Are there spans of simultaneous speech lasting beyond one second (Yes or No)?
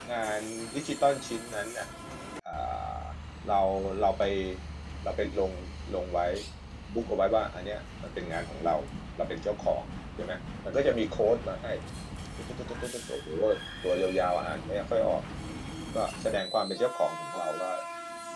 No